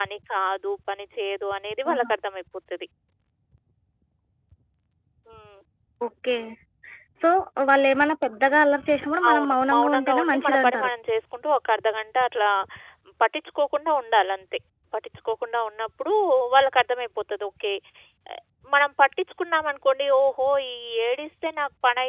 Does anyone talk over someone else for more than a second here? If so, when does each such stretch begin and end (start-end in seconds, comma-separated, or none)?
9.3-10.9